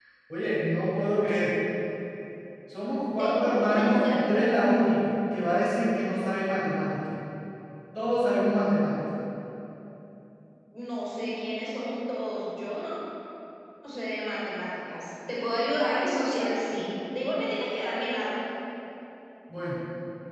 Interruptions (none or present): present